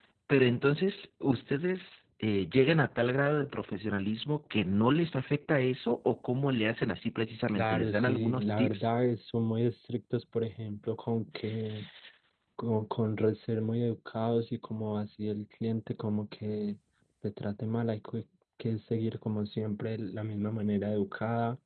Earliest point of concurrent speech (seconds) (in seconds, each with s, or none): 7.5 s